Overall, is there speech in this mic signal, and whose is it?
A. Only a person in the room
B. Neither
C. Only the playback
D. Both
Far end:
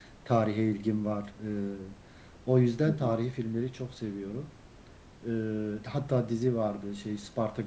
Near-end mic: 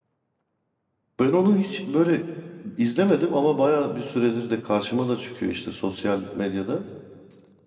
A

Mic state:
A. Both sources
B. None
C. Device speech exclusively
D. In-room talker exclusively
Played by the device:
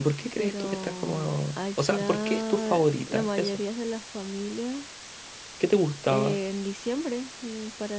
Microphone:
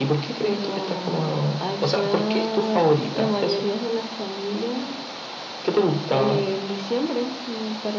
C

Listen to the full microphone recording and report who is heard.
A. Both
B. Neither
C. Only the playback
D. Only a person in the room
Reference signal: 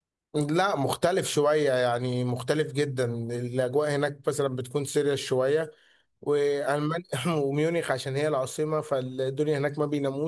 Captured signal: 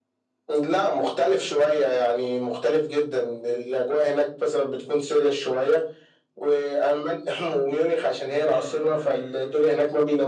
A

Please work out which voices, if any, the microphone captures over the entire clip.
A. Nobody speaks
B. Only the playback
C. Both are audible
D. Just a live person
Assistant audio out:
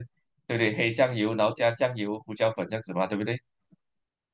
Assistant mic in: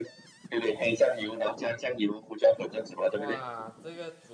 C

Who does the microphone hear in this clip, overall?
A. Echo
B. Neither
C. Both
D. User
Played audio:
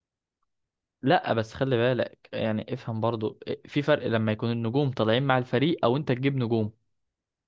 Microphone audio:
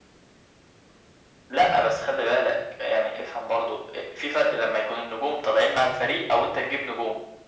A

